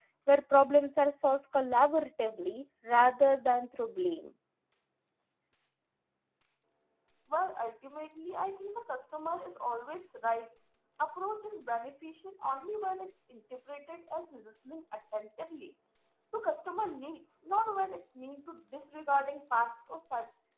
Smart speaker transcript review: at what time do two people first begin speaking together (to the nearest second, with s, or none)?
none